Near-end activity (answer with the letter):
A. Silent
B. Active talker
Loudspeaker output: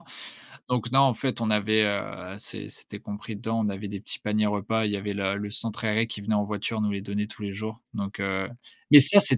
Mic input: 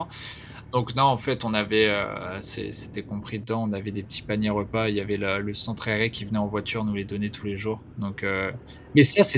A